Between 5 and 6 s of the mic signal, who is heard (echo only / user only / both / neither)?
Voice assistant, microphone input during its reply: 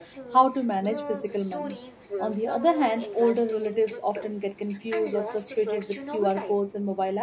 both